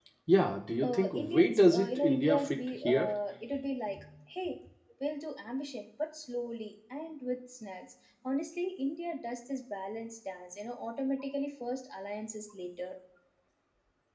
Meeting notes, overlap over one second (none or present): present